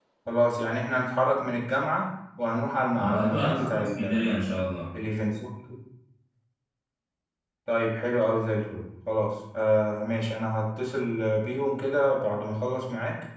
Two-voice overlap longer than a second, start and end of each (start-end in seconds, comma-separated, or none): 3.0-4.3